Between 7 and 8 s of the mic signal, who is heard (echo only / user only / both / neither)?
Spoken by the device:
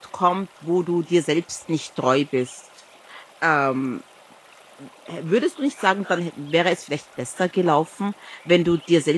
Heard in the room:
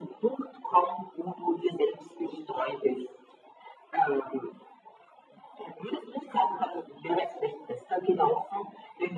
echo only